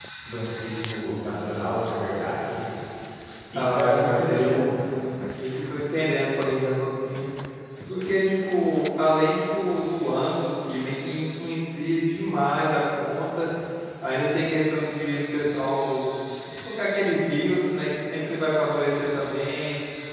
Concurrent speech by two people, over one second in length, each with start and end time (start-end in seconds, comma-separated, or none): 3.5-4.8